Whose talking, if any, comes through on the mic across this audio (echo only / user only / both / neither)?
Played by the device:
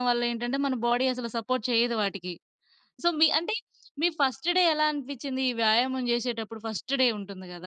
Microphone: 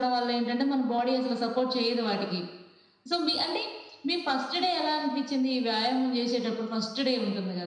echo only